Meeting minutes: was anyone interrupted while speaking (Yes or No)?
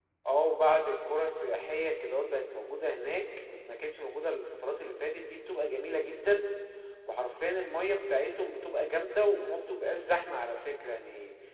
No